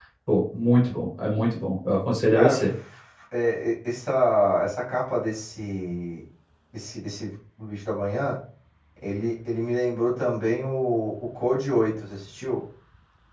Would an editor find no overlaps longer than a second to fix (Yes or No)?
Yes